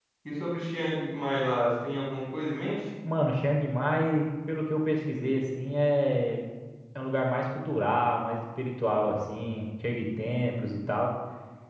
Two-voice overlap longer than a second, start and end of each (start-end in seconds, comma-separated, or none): none